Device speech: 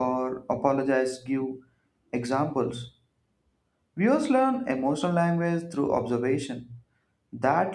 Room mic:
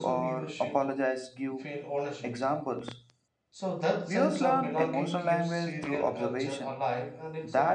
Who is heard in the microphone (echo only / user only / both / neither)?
both